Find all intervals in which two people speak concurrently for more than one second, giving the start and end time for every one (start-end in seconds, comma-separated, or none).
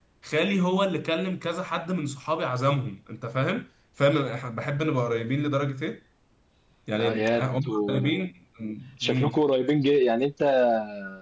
7.0-8.2